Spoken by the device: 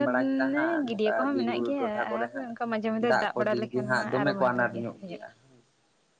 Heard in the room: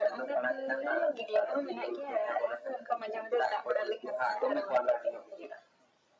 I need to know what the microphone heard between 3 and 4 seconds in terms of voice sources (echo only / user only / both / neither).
echo only